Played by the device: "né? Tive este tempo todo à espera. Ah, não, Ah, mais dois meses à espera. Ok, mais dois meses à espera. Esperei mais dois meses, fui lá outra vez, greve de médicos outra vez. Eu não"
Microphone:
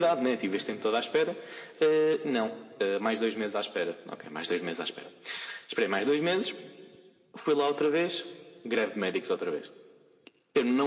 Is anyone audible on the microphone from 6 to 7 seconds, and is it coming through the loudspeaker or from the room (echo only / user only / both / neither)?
echo only